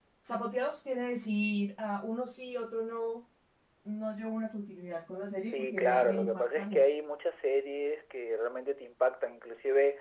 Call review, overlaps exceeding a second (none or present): present